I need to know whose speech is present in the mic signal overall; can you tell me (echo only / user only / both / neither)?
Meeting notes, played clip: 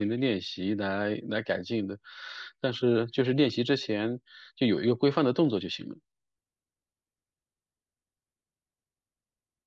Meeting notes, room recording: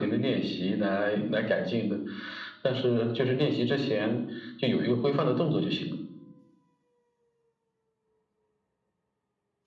echo only